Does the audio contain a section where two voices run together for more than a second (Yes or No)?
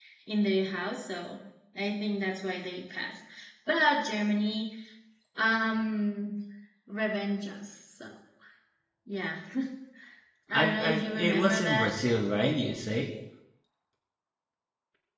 Yes